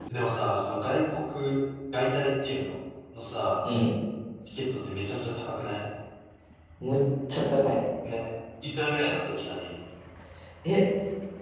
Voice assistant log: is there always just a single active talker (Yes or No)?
Yes